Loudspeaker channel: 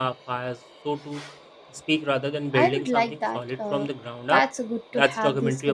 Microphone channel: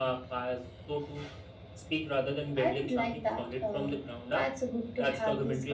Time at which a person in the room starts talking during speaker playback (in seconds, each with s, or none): none